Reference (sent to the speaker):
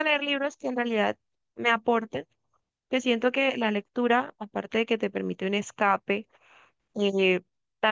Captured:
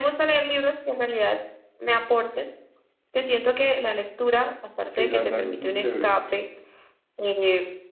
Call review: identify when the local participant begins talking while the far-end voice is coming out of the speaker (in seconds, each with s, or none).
4.9 s